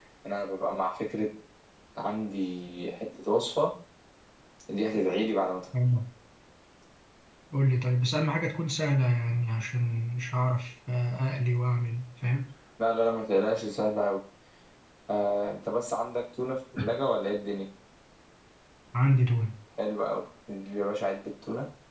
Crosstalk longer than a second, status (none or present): none